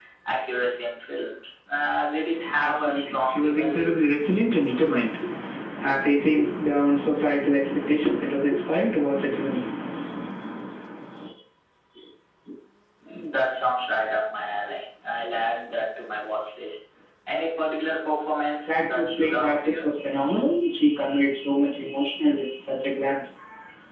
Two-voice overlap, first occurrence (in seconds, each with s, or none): 2.6 s